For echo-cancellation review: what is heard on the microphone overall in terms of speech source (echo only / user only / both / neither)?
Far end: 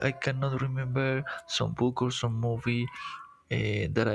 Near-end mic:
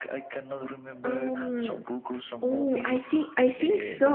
both